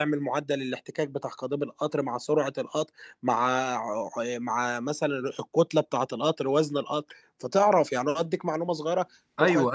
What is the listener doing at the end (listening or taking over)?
taking over